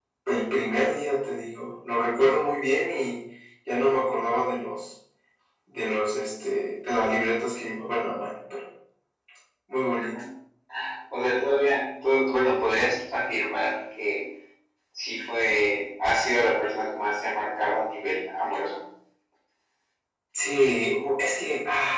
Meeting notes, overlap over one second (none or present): none